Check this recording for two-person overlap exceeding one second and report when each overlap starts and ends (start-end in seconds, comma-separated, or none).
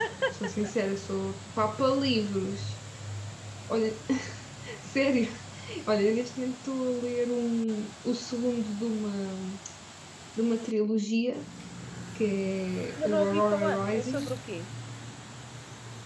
13.0-14.2